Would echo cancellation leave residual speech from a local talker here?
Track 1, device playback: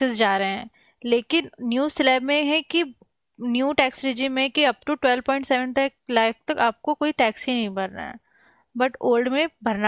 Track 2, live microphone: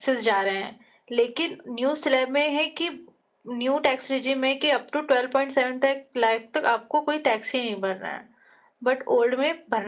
No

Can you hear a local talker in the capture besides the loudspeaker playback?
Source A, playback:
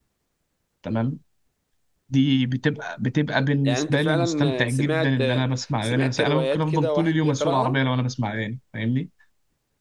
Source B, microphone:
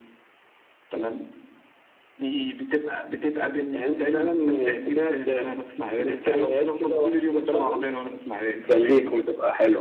Yes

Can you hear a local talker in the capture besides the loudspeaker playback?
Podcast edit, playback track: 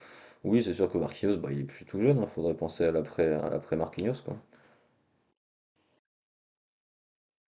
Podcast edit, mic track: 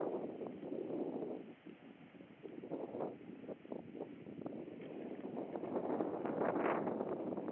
No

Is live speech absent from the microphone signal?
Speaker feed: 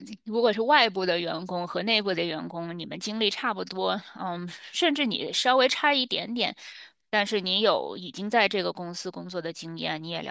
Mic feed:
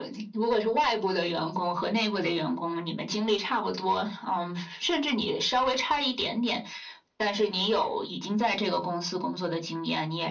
Yes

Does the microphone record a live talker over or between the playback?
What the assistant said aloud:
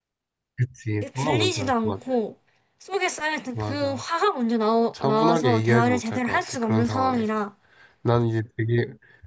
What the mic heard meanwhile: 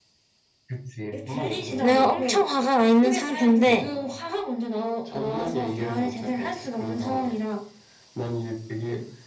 Yes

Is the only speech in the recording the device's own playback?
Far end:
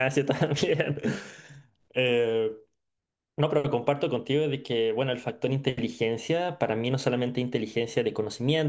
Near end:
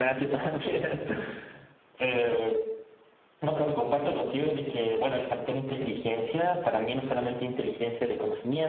Yes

